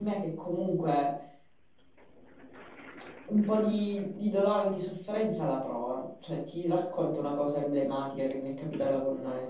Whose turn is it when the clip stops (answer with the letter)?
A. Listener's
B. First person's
B